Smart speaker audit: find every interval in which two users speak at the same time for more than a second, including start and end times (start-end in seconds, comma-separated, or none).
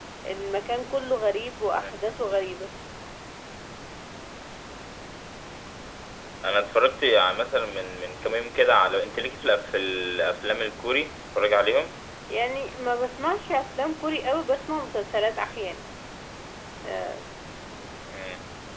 none